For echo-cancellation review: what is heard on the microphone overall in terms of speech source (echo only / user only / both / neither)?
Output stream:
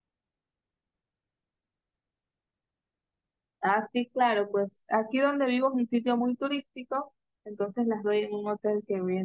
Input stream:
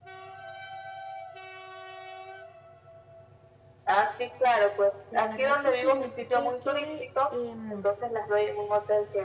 both